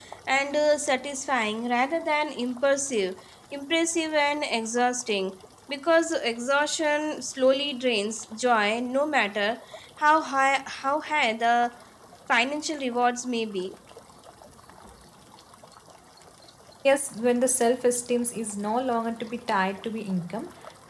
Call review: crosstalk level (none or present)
none